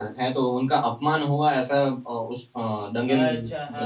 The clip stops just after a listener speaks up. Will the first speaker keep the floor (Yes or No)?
No